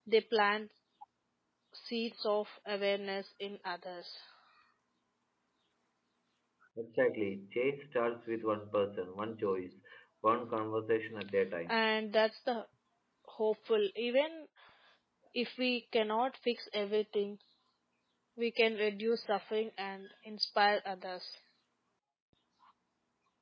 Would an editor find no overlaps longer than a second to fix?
Yes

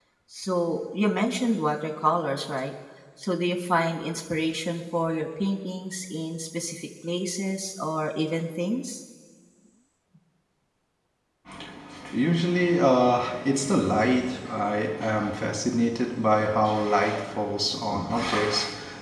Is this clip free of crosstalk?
Yes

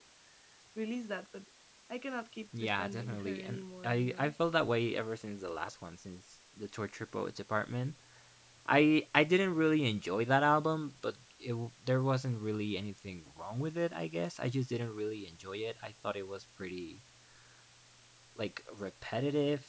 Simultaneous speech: Yes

